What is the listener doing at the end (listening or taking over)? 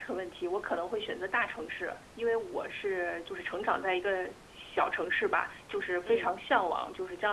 listening